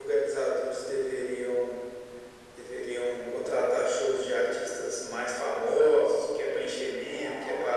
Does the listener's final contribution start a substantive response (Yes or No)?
No